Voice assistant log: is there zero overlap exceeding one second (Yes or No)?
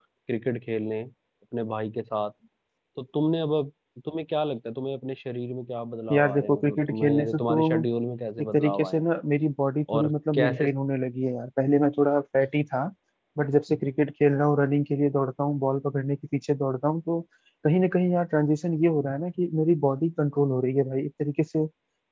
No